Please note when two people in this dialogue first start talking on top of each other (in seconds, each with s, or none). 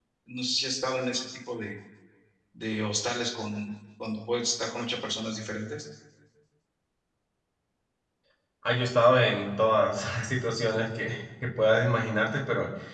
none